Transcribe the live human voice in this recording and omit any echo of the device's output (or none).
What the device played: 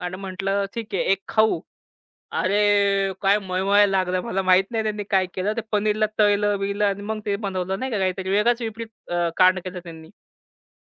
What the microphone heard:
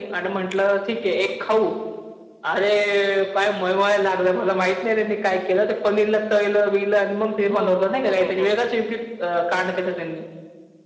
हो, हो, हो, हो, हो.